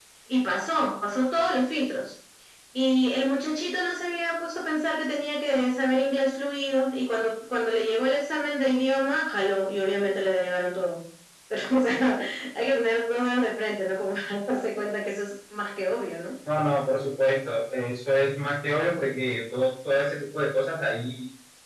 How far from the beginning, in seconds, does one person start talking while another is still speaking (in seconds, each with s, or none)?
none